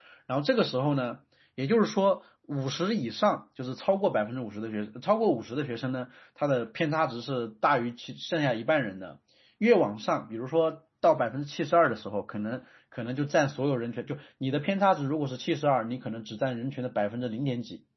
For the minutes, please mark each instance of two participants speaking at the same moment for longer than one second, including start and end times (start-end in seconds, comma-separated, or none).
none